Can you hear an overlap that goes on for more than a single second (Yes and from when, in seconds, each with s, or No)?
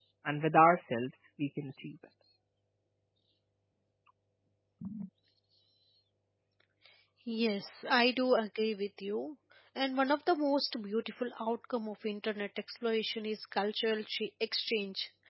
No